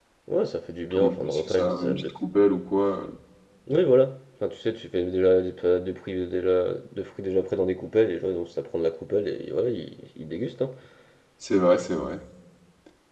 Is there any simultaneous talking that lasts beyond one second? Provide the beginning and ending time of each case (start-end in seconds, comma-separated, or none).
0.9-2.1